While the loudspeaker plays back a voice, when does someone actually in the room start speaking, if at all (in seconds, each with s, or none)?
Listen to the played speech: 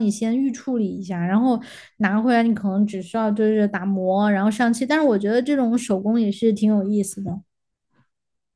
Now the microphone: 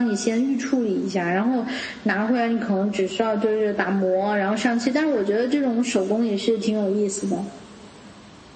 none